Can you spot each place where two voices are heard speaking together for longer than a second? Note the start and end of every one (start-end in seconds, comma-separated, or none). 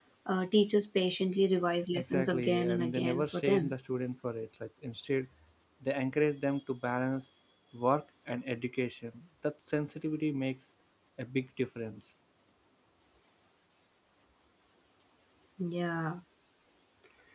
1.9-3.7